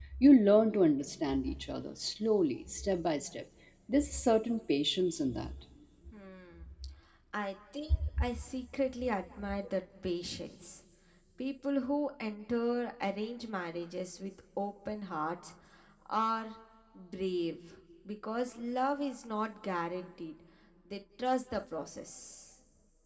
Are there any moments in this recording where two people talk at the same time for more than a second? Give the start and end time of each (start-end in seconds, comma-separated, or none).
none